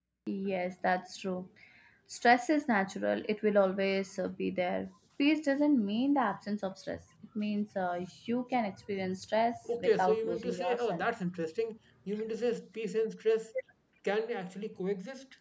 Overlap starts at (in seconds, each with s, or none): 9.7 s